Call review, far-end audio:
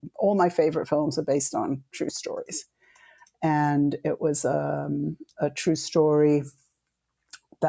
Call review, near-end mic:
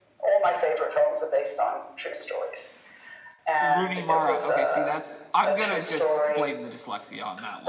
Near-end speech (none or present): present